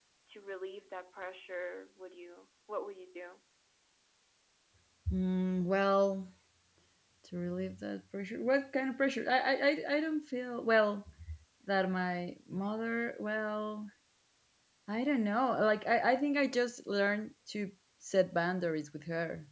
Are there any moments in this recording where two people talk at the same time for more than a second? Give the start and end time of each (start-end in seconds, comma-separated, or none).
none